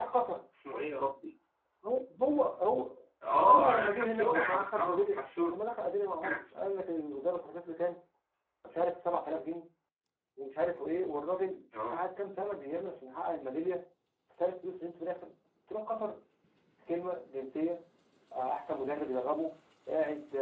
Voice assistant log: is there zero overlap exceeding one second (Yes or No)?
No